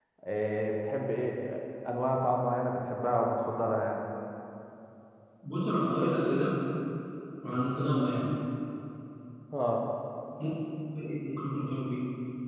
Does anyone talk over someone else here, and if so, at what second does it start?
none

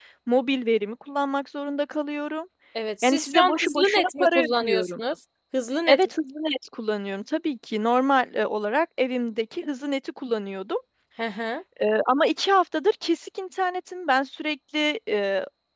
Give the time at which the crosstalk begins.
3 s

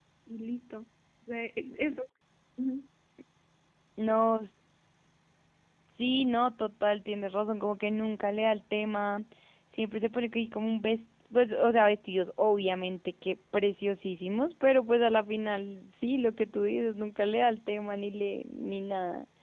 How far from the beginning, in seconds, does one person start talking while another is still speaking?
none

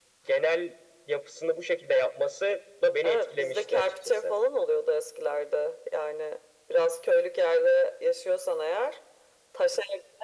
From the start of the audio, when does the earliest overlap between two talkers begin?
3 s

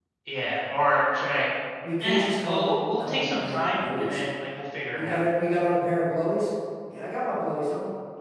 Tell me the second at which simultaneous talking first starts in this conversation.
2 s

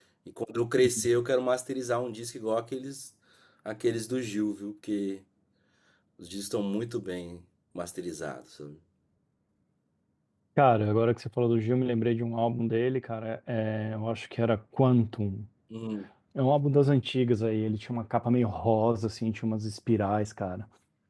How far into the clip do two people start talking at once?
none

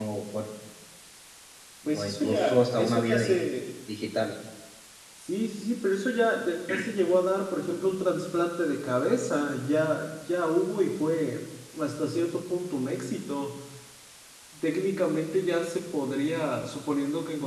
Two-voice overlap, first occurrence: 2 s

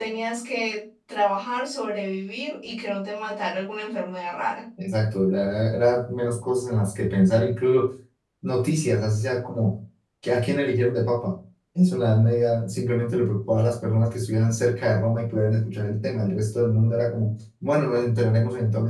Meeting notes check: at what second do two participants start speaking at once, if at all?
none

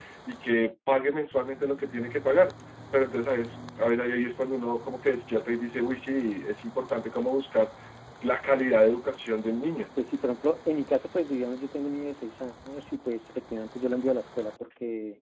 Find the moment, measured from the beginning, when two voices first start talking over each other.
none

